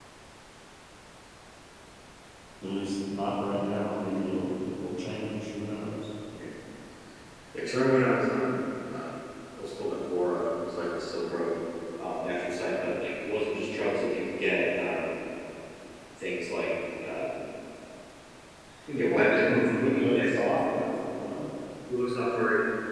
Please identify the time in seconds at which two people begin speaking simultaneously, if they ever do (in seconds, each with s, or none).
19.1 s